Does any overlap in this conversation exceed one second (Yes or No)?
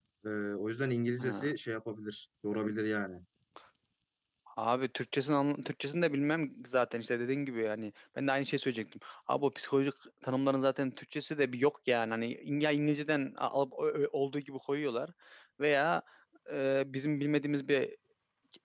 No